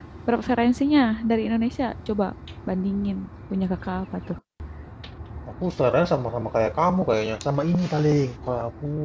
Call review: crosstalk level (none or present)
none